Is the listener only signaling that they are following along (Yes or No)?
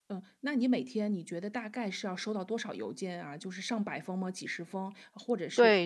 No